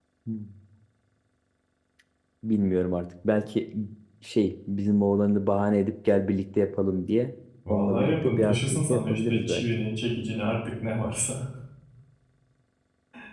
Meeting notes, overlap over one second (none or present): present